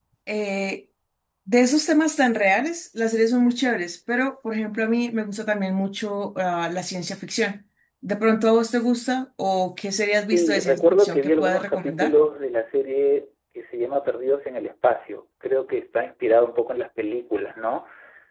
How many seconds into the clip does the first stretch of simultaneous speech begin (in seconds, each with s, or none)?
10.3 s